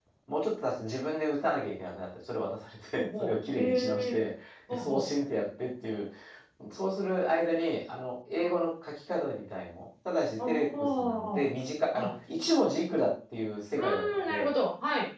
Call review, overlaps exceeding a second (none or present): present